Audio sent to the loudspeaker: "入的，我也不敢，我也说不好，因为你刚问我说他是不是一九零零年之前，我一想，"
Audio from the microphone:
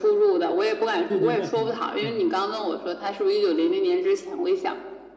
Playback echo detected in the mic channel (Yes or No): Yes